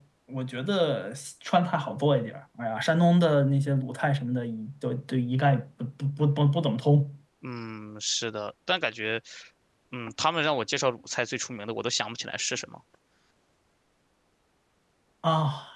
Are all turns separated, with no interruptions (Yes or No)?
Yes